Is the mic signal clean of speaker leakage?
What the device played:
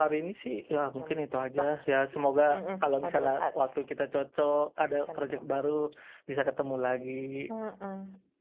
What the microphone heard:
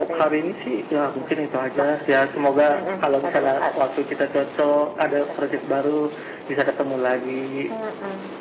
No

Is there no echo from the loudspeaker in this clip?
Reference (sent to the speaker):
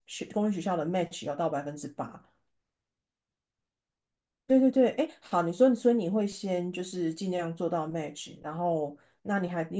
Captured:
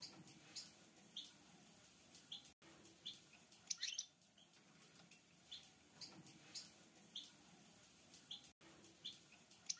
Yes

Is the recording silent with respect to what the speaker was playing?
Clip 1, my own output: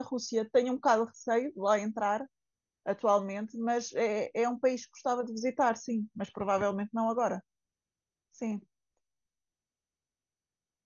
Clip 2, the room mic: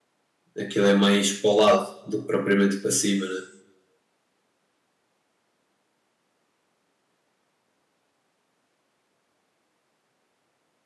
Yes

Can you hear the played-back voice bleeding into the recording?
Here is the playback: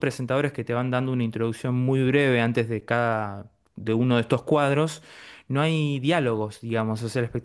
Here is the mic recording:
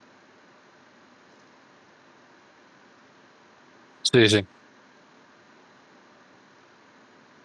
No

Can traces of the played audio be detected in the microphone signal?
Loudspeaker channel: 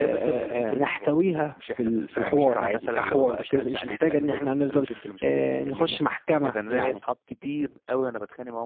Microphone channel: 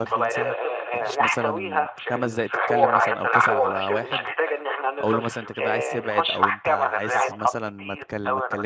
Yes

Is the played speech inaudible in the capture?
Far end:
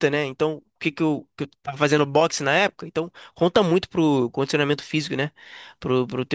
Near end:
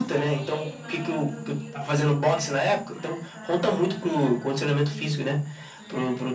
No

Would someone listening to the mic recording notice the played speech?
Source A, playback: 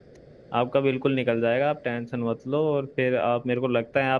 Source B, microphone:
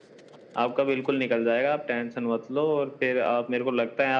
Yes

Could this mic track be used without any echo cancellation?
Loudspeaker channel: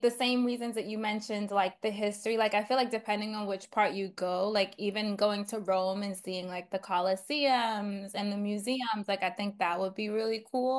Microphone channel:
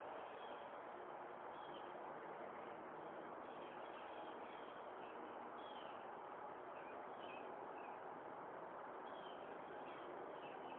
Yes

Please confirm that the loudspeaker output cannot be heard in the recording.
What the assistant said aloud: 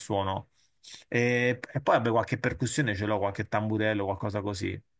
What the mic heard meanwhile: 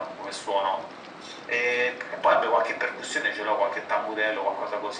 No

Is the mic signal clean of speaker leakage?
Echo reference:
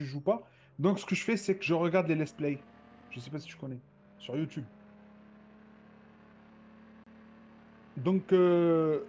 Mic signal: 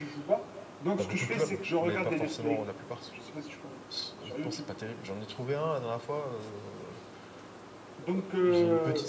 No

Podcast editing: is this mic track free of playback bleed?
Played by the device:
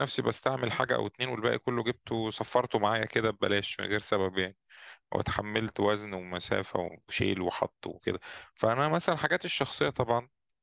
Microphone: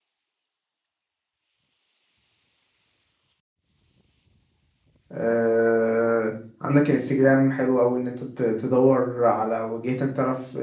Yes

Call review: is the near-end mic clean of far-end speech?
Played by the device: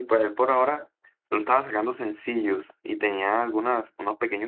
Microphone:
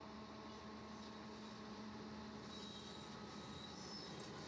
Yes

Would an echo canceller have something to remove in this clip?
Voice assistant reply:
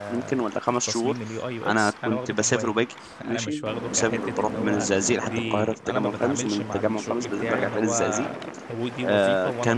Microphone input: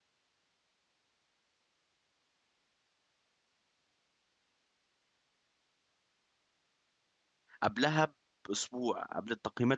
No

